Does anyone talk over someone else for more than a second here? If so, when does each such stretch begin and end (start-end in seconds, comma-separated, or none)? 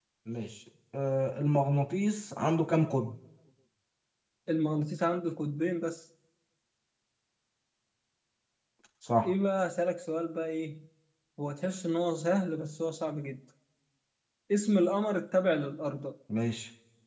none